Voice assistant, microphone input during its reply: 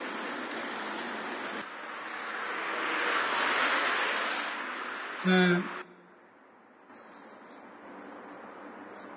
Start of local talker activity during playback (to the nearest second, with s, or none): 5 s